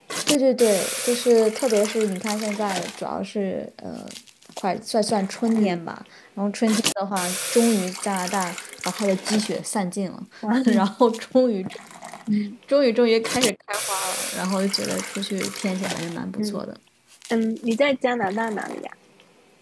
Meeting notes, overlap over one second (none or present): none